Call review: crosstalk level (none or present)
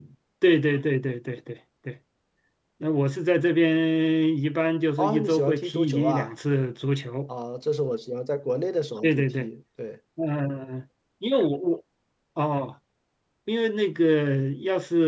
present